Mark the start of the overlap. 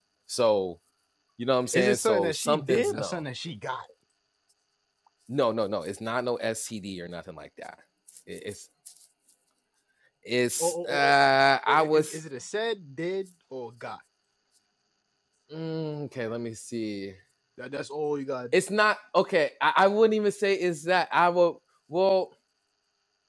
1.7 s

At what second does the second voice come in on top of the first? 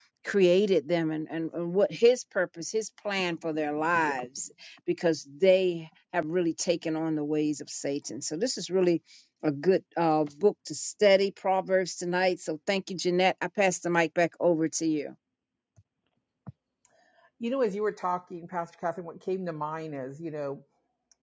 none

